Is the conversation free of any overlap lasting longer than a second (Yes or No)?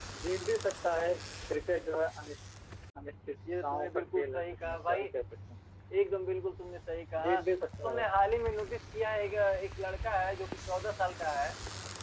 No